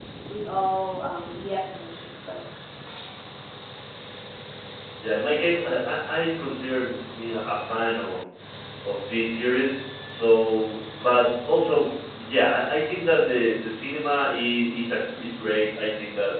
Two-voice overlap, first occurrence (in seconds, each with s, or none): none